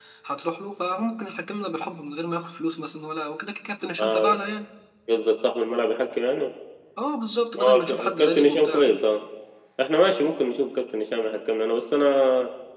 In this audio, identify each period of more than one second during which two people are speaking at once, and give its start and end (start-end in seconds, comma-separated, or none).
7.6-8.9